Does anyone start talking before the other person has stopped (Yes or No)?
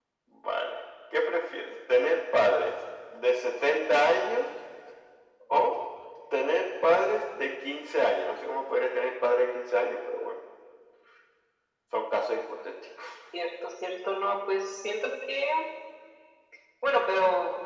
No